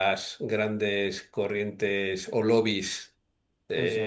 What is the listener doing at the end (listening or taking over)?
listening